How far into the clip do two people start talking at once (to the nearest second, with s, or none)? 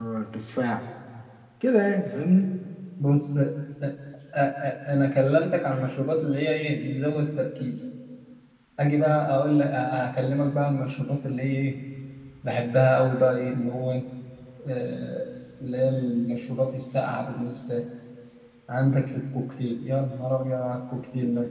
none